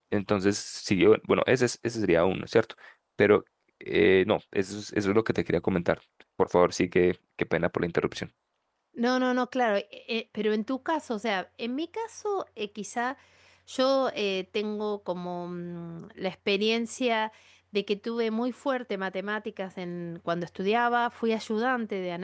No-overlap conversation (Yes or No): Yes